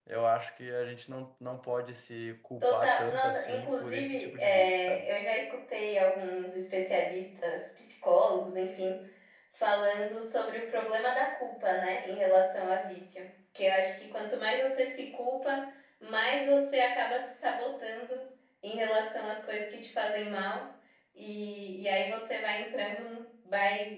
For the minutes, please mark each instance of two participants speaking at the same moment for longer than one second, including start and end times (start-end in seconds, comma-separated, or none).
2.6-5.1